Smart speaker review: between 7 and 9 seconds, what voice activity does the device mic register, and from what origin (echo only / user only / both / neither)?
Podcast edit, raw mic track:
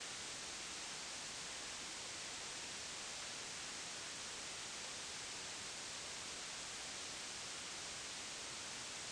neither